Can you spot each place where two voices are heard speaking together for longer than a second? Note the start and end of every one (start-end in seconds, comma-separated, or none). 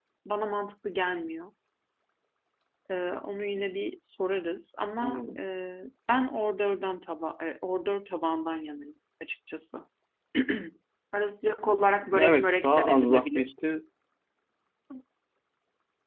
12.1-13.5